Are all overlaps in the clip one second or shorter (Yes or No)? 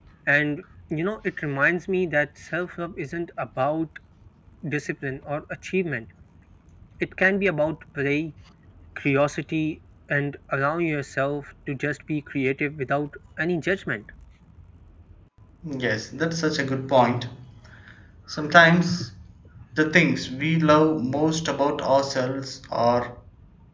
Yes